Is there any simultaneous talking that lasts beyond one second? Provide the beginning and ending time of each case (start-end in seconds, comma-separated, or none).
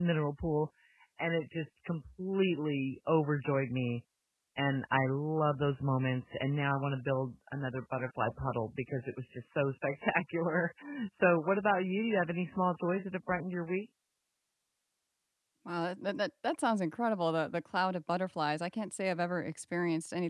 none